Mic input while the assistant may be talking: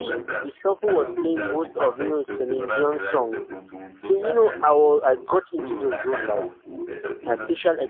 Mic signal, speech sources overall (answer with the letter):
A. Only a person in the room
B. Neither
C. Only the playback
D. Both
D